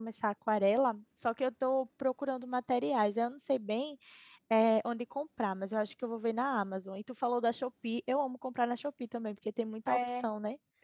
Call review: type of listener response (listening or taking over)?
taking over